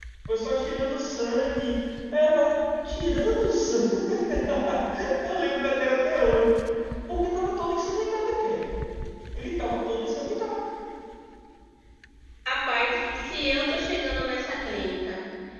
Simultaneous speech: No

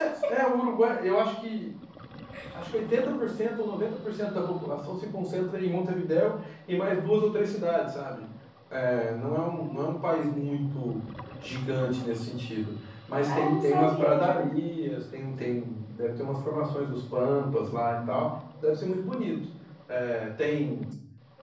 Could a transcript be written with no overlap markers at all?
No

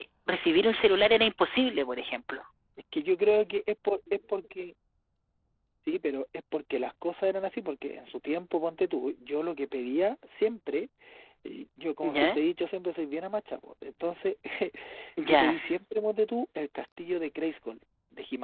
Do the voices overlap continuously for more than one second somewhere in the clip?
No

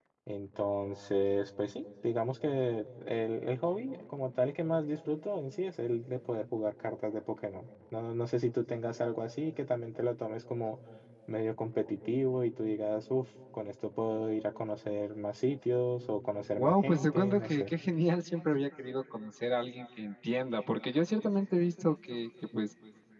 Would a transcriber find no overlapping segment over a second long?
No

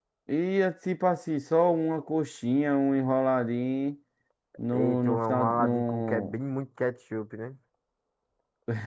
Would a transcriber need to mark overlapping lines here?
Yes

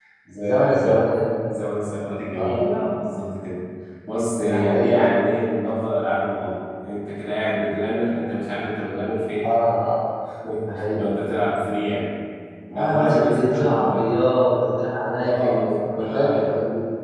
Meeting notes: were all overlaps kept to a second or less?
No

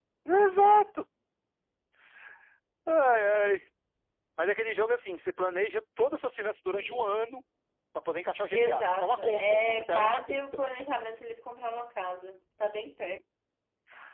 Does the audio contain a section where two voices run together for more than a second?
Yes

